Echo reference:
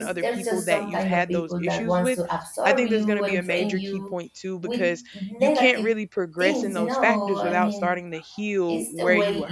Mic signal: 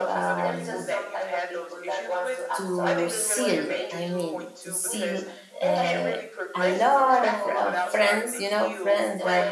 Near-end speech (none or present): present